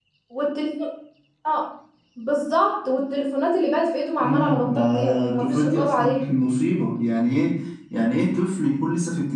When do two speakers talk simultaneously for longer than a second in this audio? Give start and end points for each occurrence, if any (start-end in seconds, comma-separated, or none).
4.2-6.2